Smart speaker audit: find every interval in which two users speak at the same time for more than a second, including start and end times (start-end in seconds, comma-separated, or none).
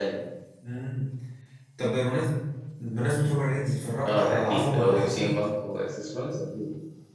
4.0-5.4